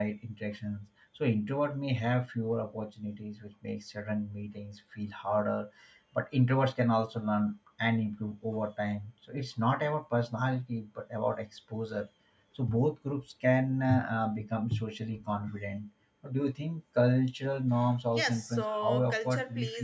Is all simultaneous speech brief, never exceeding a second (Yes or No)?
No